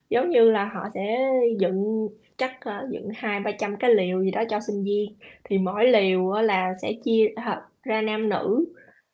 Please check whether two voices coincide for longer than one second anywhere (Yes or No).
No